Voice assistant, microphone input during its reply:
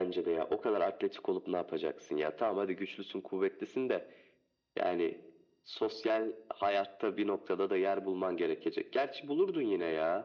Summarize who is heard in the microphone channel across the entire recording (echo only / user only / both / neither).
echo only